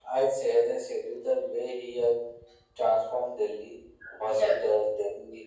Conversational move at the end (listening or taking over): listening